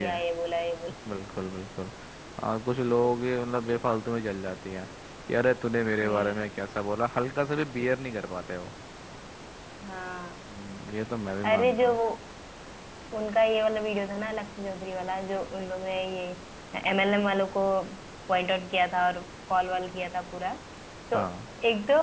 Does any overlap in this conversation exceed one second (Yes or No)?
No